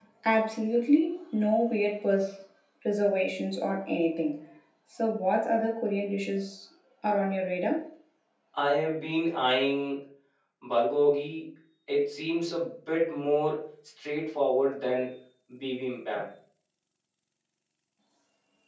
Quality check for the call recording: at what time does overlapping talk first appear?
none

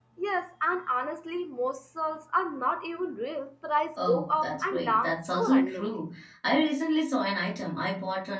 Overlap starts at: 4.0 s

